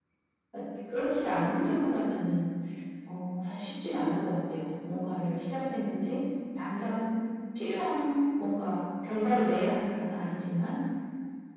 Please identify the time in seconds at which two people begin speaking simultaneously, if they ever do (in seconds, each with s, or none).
none